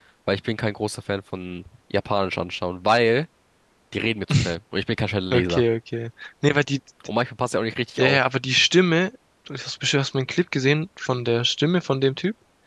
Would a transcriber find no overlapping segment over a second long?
Yes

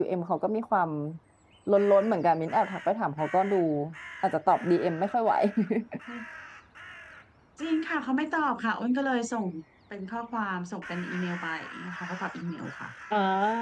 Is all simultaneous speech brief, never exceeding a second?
Yes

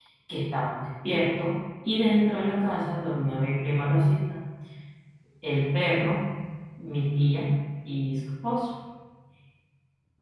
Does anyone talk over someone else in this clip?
No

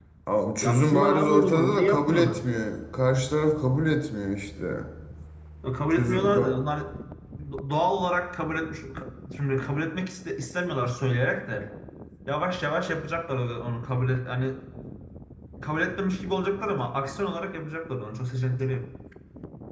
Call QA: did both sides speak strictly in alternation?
No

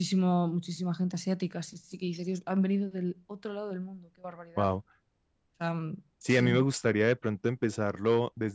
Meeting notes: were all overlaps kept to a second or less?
Yes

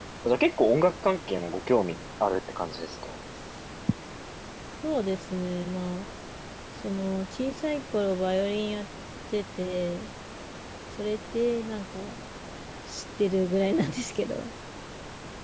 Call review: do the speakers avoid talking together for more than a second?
Yes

